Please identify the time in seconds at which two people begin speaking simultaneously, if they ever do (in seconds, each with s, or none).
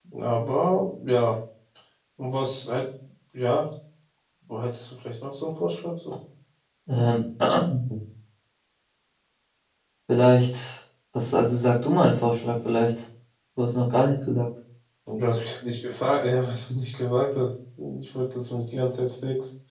none